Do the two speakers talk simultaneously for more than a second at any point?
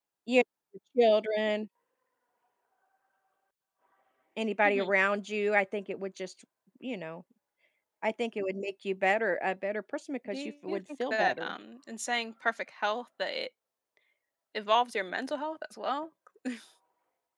Yes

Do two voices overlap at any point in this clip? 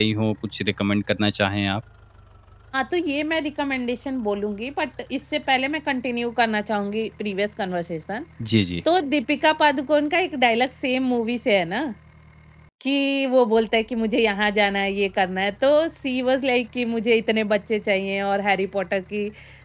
No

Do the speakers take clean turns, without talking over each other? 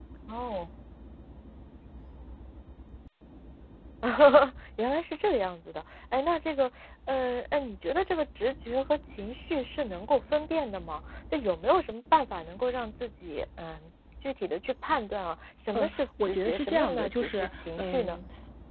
No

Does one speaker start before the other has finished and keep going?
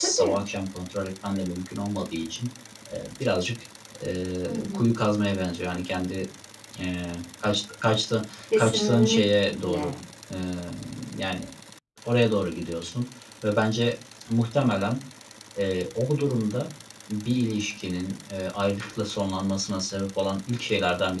Yes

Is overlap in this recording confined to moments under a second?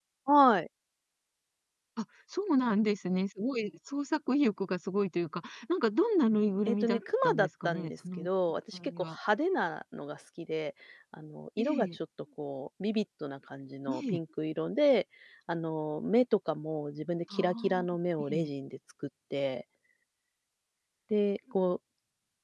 No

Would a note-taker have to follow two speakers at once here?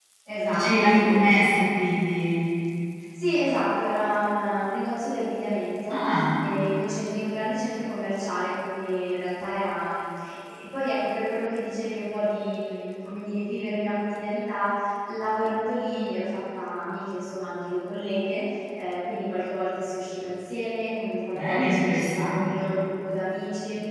Yes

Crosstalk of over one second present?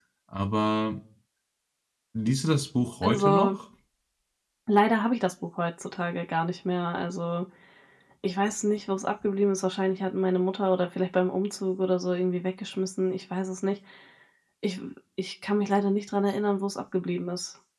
No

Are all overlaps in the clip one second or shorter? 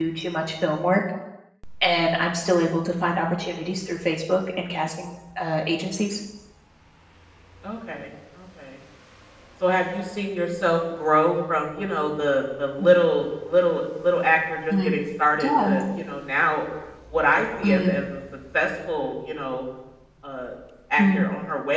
Yes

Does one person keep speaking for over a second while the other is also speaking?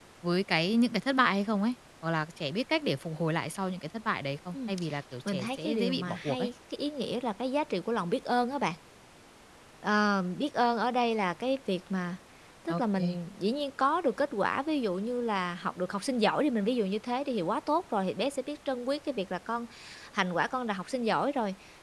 Yes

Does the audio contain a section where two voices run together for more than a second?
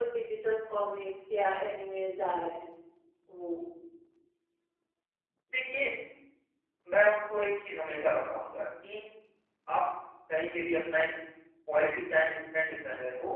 No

